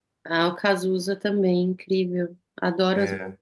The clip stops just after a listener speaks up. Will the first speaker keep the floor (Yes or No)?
No